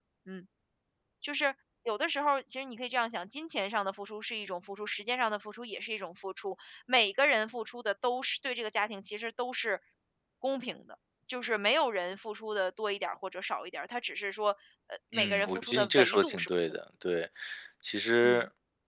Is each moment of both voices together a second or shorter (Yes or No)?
No